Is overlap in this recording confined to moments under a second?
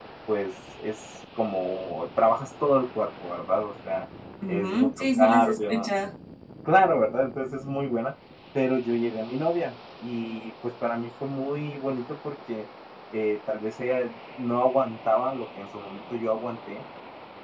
No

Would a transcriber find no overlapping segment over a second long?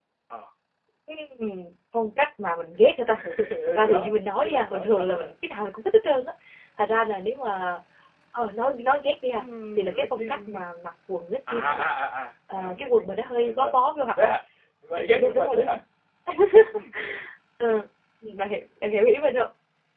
No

